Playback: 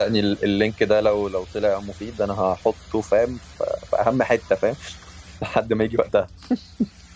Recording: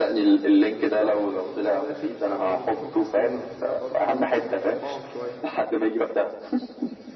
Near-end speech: present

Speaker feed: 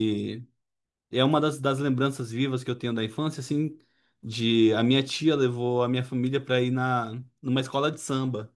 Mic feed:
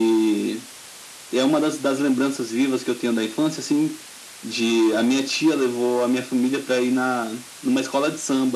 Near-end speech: none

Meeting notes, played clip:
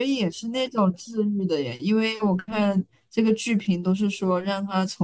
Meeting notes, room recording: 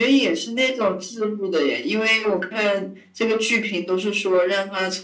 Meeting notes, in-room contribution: none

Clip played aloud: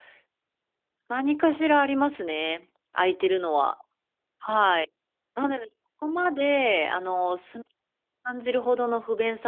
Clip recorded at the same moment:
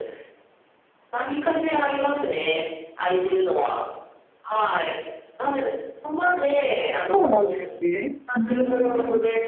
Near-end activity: present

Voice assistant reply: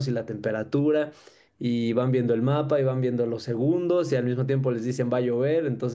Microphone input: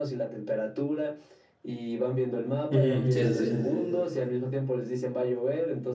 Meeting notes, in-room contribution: present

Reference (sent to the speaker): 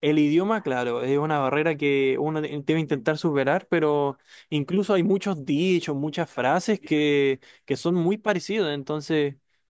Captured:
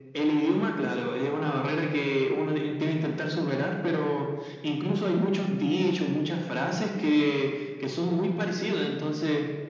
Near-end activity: none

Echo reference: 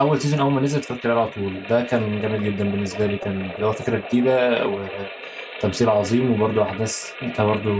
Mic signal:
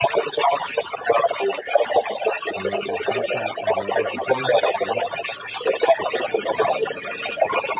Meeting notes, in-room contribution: present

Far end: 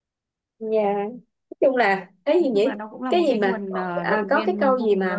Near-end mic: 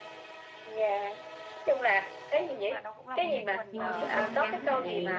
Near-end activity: present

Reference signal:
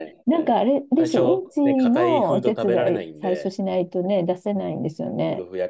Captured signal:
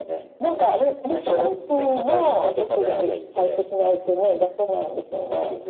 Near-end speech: none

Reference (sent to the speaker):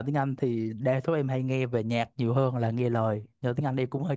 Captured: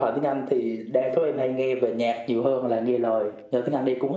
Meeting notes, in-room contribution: none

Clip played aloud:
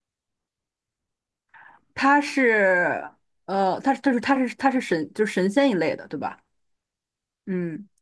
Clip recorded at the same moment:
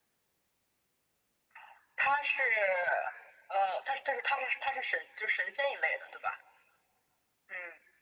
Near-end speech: none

